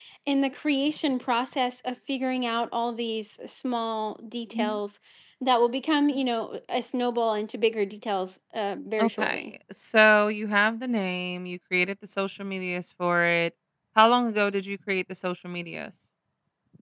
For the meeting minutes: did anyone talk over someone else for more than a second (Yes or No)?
No